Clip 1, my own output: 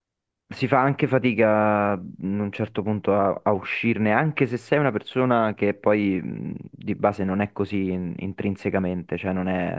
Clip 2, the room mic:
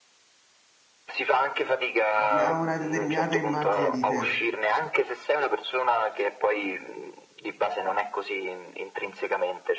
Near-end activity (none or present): present